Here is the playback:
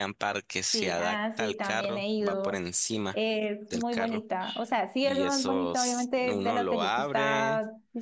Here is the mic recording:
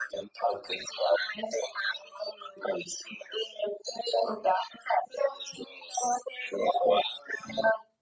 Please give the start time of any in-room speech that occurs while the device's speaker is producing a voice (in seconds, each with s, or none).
none